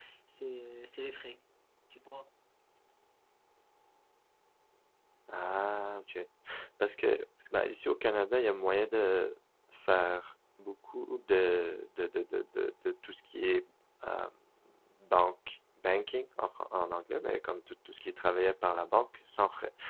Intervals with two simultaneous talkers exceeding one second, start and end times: none

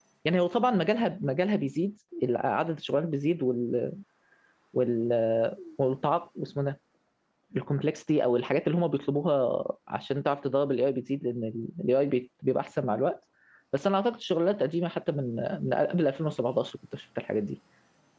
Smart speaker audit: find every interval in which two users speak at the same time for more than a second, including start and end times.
none

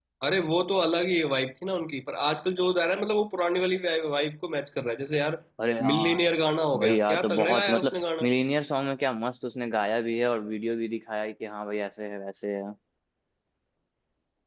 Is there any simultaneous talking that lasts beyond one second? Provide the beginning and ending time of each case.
6.8-8.3

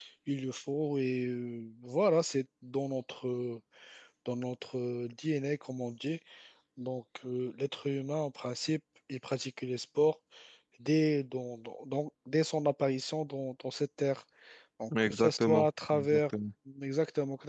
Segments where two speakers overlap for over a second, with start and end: 15.0-16.3

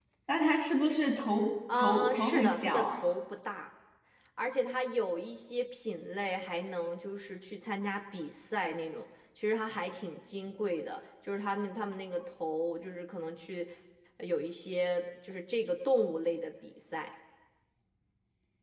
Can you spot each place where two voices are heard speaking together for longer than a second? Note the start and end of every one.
1.8-3.0

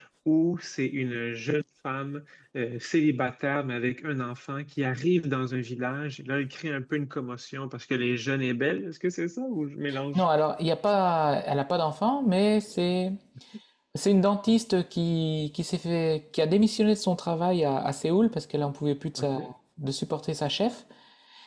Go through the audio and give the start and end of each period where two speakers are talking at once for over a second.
none

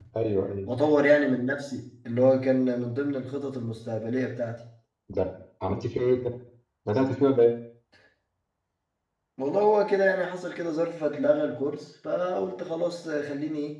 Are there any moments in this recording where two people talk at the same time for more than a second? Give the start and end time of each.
none

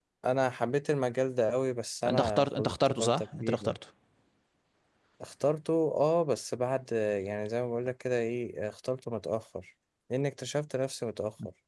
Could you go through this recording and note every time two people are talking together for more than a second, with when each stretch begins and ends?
2.0-3.8

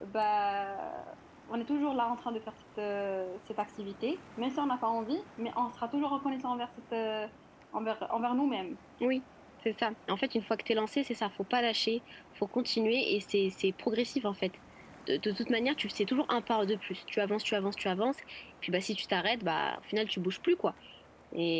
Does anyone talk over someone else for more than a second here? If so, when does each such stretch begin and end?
none

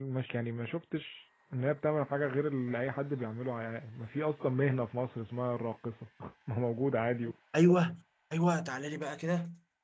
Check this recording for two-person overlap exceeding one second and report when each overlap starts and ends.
none

